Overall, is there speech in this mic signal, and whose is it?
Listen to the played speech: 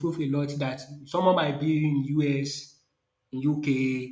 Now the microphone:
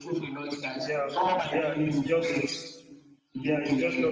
both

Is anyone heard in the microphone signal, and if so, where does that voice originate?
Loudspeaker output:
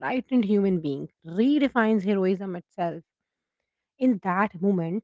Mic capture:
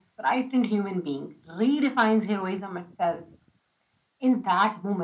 echo only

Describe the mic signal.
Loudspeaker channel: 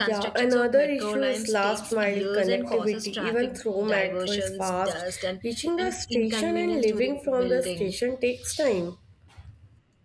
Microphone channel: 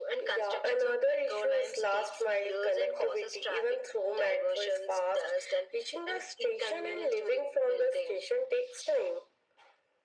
echo only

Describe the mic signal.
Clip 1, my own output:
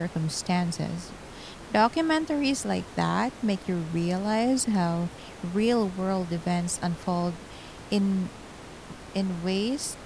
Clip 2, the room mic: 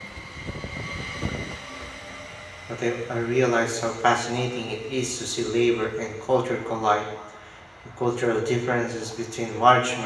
user only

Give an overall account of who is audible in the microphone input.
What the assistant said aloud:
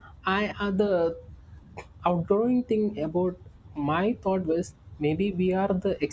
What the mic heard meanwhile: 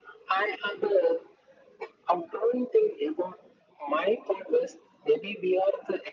echo only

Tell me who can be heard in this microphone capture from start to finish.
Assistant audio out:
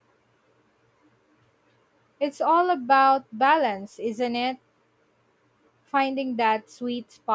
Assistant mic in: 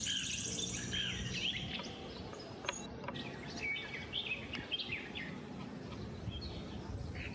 neither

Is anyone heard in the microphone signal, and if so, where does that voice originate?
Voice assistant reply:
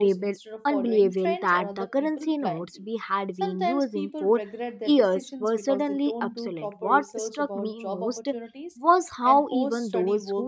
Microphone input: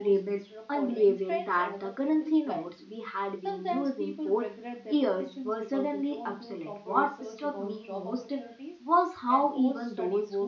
echo only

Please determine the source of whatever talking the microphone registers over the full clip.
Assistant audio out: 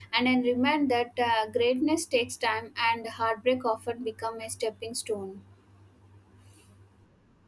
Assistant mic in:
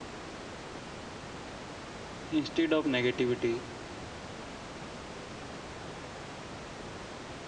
user only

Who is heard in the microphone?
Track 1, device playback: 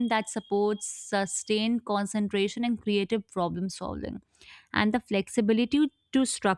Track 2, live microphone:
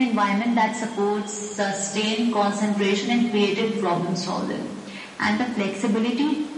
echo only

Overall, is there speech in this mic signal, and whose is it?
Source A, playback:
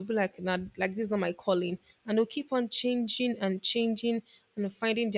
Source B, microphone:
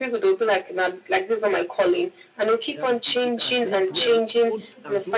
both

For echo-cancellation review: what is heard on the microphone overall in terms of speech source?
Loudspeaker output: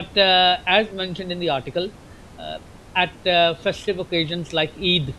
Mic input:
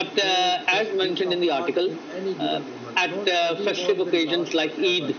both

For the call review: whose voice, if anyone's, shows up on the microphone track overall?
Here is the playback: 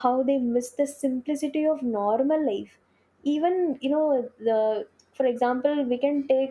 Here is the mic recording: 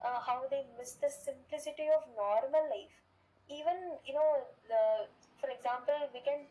echo only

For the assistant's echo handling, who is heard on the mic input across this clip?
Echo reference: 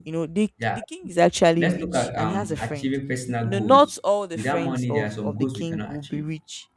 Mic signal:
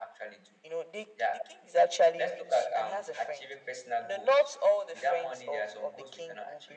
echo only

